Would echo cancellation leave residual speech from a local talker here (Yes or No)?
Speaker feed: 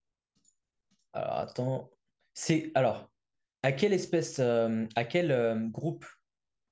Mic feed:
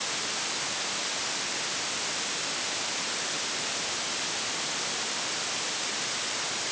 No